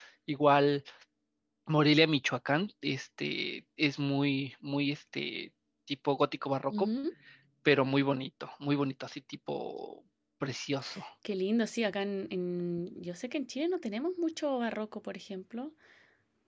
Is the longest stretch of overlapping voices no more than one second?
Yes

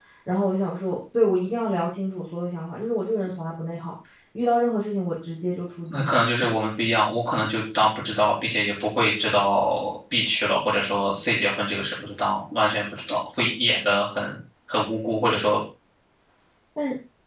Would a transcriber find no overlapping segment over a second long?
Yes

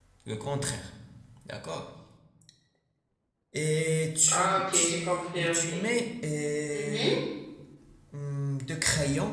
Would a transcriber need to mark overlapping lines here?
Yes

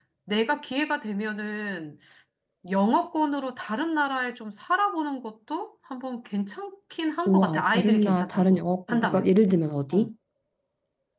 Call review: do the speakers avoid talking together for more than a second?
No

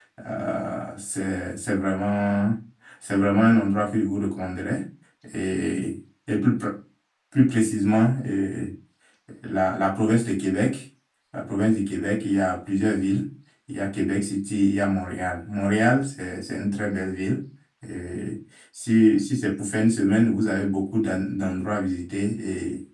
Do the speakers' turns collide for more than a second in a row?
No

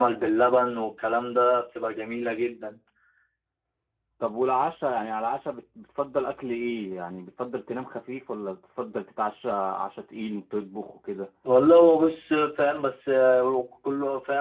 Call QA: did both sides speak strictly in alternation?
Yes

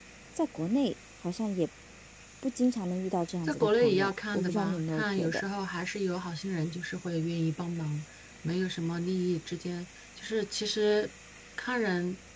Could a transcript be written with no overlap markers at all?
No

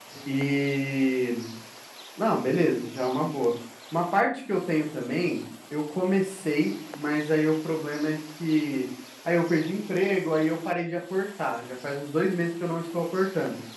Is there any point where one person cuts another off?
No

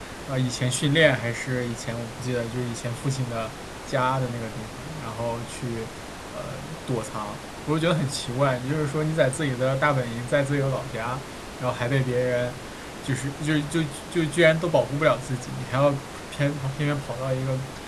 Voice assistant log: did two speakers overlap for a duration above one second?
No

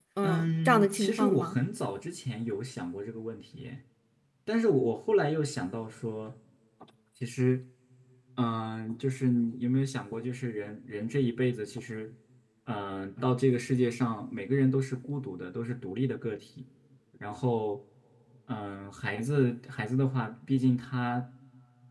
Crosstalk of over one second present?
Yes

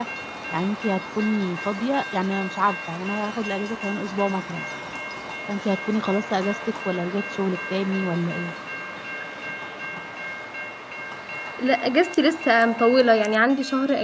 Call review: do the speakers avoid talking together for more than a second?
Yes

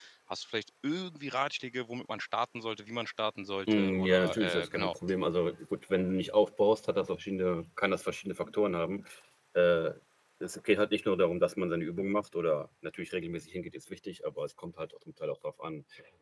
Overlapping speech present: Yes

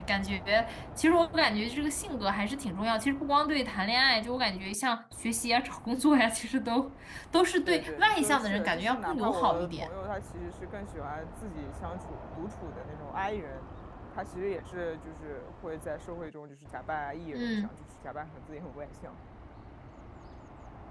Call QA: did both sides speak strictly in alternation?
No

